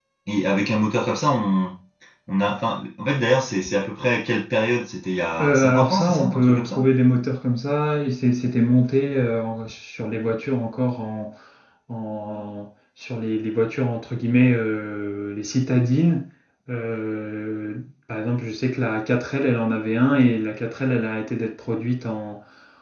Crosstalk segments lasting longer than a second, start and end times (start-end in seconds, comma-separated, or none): 5.4-6.9